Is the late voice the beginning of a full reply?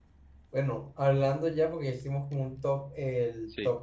No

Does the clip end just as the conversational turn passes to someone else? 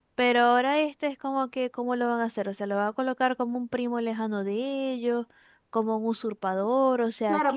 Yes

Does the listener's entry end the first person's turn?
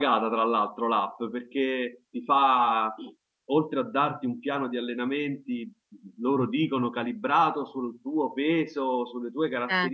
No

